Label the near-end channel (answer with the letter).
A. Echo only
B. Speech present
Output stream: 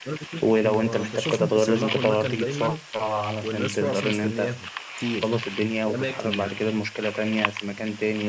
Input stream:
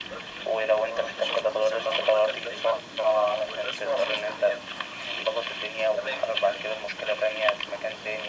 A